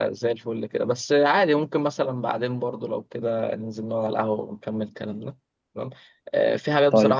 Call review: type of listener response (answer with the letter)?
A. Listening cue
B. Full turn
A